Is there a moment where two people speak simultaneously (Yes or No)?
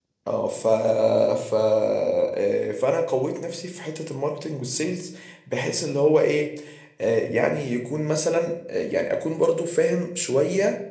No